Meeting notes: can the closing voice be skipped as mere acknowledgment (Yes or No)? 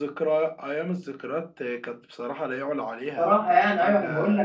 No